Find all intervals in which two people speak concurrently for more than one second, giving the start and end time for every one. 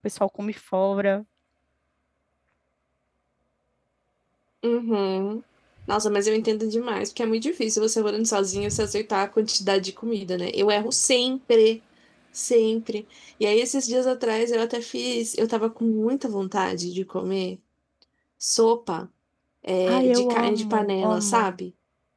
19.8-21.5

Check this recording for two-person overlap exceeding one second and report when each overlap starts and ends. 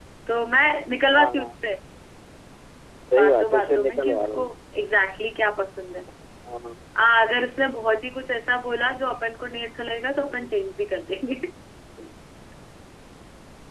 3.1-4.5

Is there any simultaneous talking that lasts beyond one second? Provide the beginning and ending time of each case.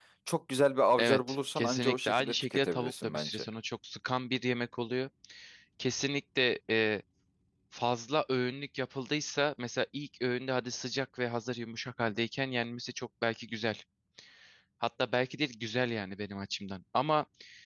1.0-3.4

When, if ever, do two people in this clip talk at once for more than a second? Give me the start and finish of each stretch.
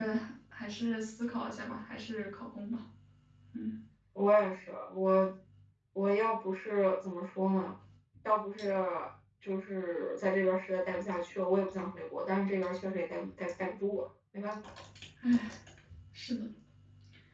none

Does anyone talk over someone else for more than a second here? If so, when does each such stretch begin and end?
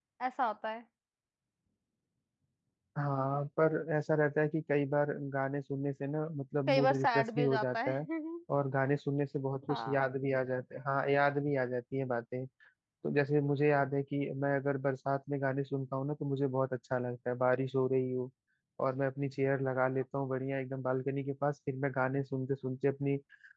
6.7-8.0

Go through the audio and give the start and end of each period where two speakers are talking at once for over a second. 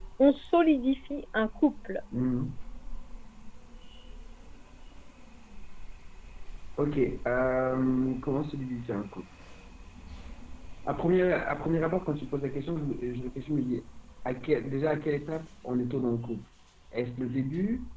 none

